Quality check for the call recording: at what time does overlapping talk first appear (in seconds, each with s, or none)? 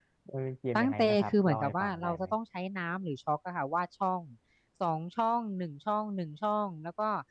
0.8 s